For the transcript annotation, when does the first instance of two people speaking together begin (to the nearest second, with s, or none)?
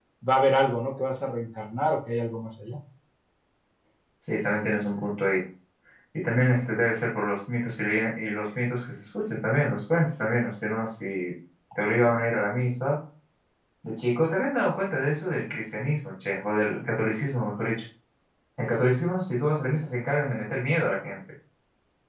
none